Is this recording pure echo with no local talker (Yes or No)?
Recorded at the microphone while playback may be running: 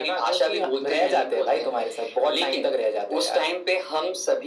Yes